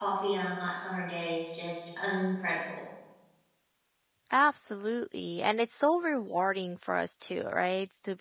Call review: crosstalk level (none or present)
none